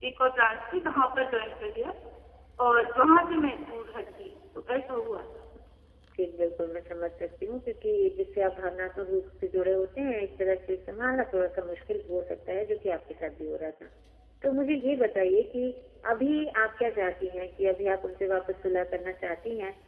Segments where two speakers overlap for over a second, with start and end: none

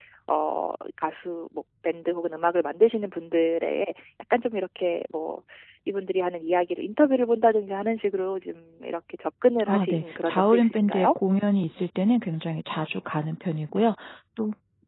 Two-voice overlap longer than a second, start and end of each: 9.6-11.1

